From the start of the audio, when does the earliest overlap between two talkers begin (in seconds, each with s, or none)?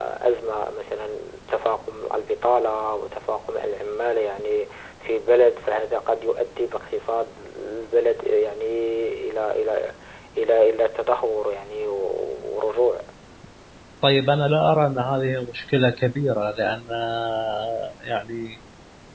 none